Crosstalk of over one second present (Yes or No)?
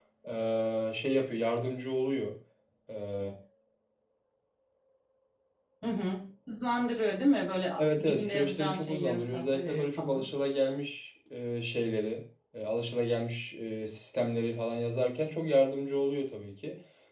Yes